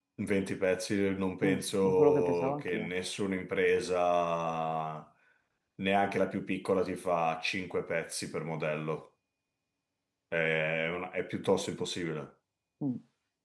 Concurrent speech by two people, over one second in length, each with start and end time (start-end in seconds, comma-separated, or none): 1.4-2.9